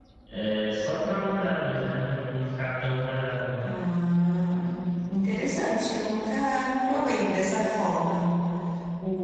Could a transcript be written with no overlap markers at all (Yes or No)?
Yes